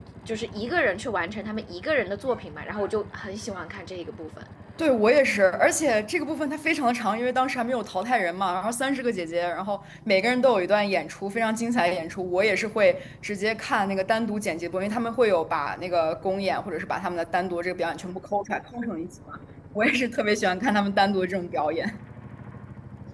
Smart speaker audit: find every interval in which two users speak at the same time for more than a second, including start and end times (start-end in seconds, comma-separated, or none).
none